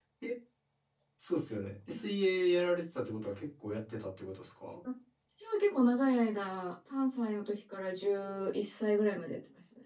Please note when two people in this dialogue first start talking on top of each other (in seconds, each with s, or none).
none